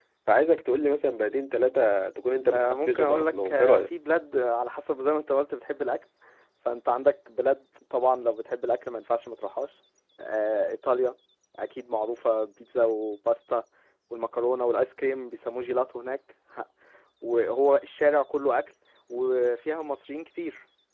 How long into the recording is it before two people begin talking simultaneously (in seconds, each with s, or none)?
2.5 s